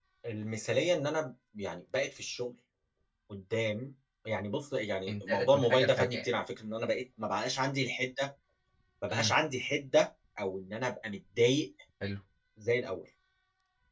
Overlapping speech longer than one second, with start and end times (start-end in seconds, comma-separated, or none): 5.1-6.3